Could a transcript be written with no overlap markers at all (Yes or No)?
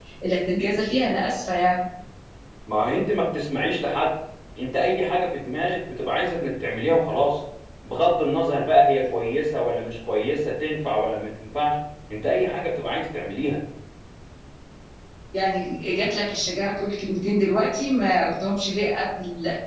Yes